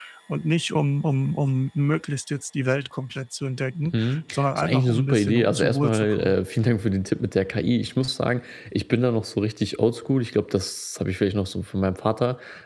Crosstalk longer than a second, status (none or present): present